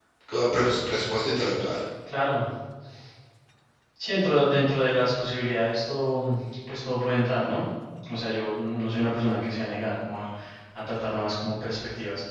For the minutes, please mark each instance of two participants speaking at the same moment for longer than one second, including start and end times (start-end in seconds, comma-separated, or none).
none